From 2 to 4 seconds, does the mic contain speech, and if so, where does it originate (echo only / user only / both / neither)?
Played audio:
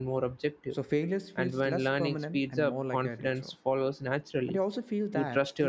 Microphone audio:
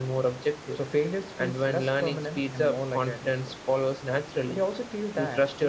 echo only